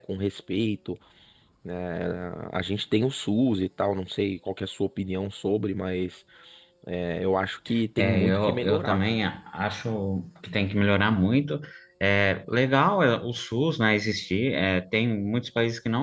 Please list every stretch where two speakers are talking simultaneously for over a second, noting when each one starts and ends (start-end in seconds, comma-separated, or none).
8.0-9.2